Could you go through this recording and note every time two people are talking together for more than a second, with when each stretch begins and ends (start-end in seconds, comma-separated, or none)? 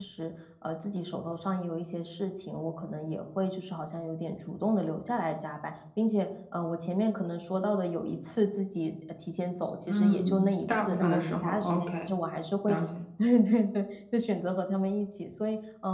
9.9-12.1